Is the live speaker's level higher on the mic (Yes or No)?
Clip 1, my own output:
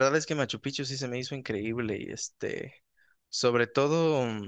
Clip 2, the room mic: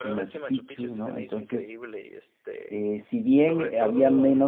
Yes